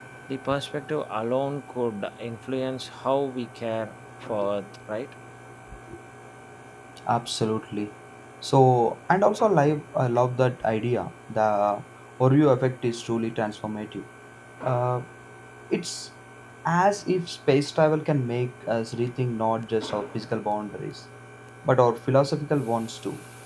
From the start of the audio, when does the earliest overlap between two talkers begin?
none

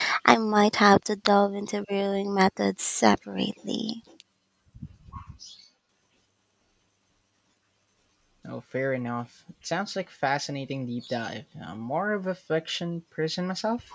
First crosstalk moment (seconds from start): none

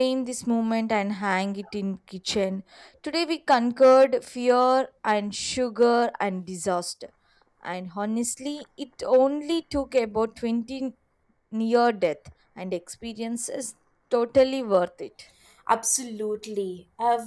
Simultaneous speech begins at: none

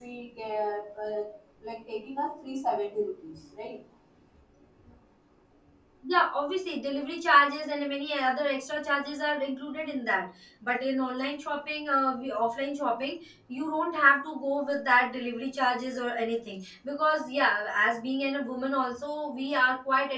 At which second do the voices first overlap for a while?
none

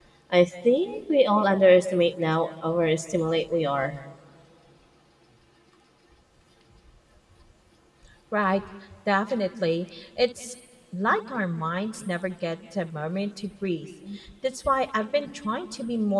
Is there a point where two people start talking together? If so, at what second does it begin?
none

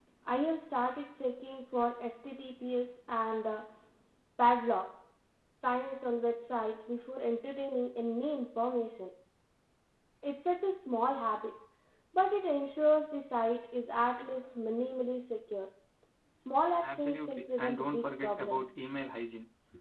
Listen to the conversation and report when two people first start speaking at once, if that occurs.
17 s

